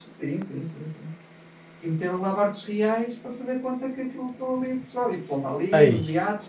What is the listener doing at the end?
listening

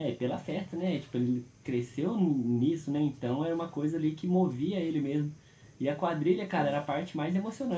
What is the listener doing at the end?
listening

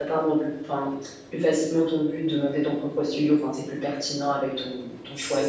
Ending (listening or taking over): taking over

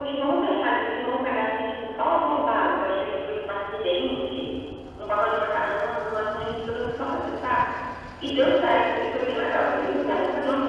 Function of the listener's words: listening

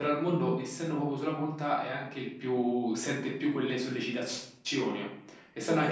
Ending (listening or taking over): listening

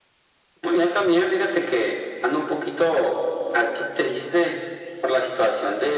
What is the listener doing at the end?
listening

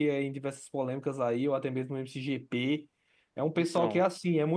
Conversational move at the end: listening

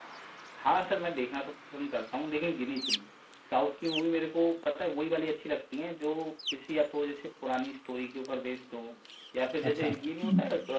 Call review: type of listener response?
listening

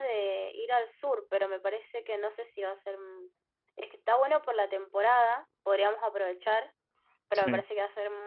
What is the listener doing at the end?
listening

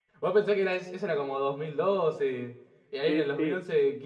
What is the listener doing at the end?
listening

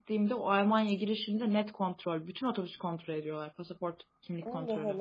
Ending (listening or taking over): taking over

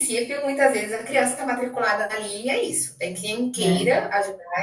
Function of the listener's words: listening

